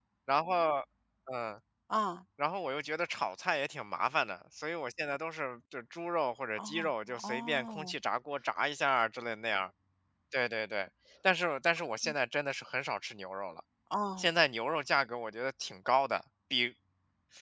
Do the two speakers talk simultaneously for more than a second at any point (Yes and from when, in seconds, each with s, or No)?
Yes, from 6.6 s